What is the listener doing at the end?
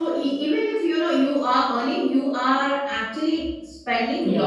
taking over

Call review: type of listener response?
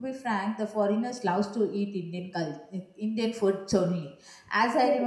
listening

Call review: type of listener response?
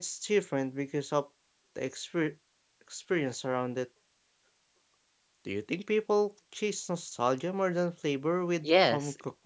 taking over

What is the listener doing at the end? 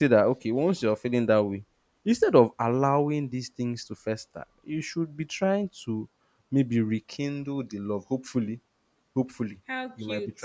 listening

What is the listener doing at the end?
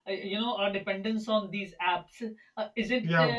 listening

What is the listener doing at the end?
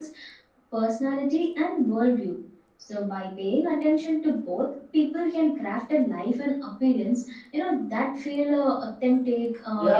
taking over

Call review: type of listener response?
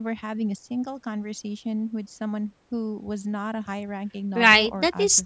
taking over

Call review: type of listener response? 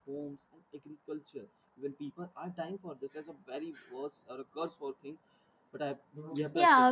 taking over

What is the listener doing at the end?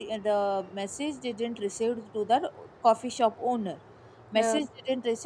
listening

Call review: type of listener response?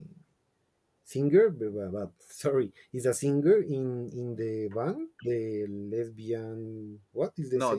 taking over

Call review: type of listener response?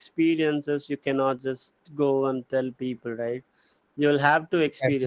listening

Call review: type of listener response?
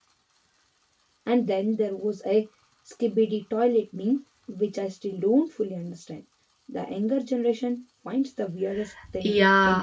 taking over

